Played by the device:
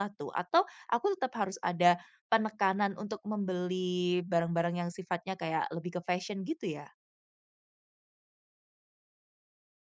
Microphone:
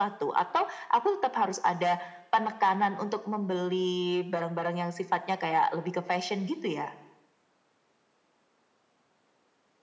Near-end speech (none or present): none